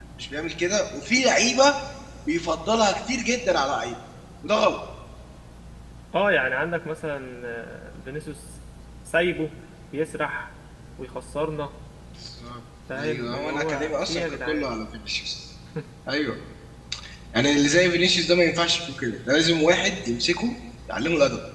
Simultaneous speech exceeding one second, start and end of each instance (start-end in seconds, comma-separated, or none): 13.0-14.7